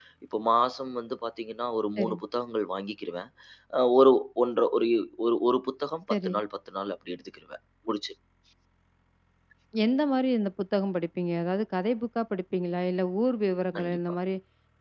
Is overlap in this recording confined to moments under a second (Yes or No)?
Yes